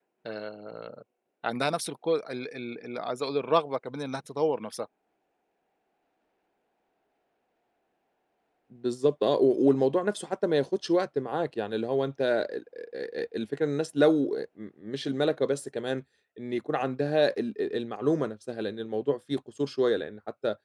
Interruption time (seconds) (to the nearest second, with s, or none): none